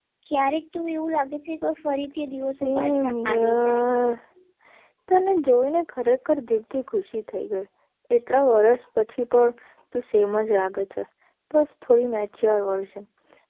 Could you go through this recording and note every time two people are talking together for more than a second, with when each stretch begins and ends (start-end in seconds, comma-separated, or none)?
2.6-3.9